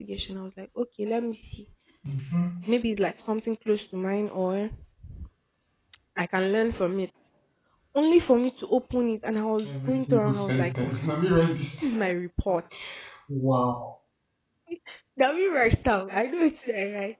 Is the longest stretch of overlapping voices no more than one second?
No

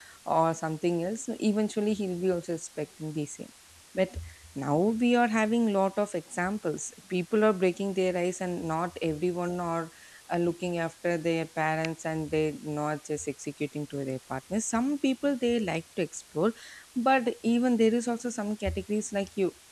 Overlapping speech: No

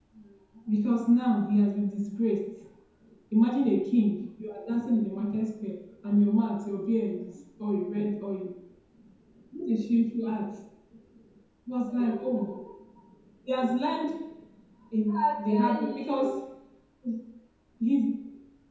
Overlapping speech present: Yes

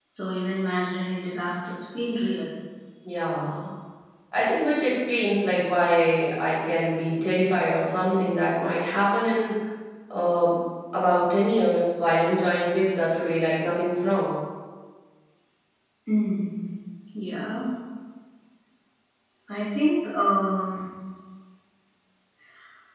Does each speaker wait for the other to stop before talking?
Yes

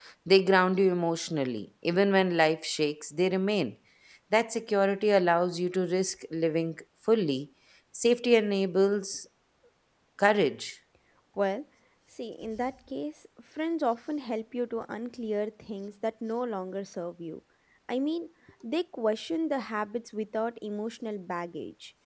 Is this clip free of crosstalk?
Yes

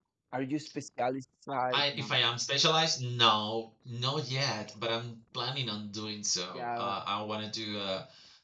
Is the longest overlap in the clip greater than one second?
No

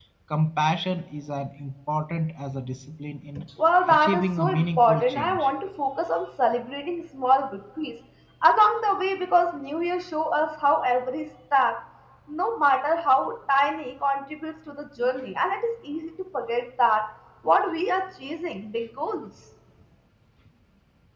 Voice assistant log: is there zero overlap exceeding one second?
No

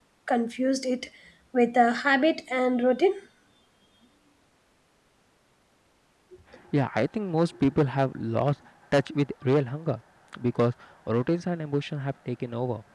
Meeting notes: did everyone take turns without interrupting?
Yes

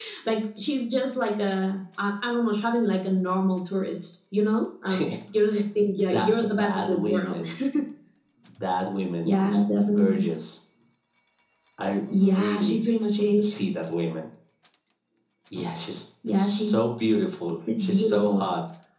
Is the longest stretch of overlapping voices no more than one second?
No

